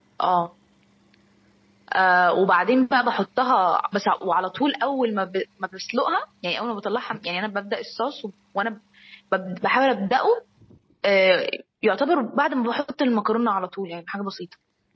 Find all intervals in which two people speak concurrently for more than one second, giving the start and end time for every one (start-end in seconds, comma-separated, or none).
none